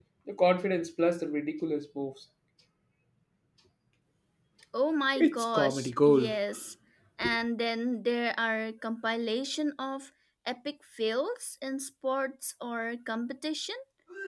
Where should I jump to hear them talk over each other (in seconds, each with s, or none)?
5.2 s